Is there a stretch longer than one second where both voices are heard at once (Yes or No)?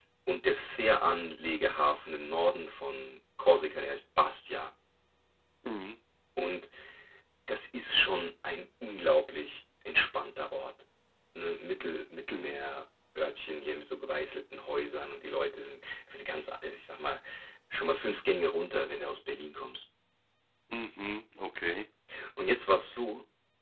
No